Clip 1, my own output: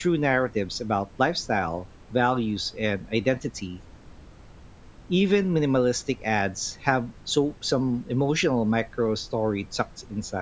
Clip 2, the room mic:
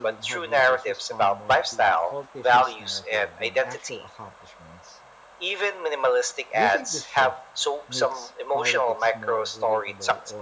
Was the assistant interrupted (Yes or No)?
Yes